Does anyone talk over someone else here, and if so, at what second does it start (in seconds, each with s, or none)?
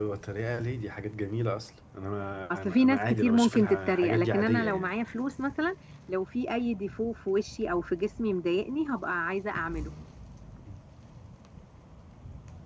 2.5 s